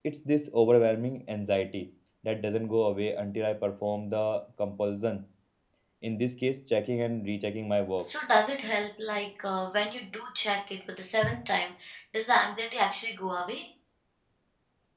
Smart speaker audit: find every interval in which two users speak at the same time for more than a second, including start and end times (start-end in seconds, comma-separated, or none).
none